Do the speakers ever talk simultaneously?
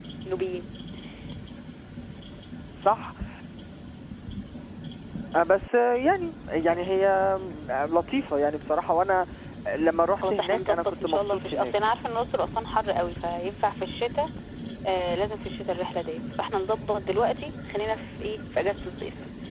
Yes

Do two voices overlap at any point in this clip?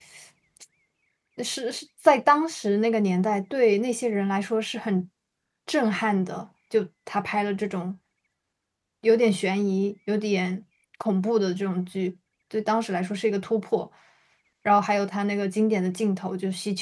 No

